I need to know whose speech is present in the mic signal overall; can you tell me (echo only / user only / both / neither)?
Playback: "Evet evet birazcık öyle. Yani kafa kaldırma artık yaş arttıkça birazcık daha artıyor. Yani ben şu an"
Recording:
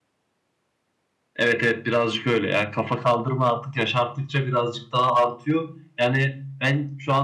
echo only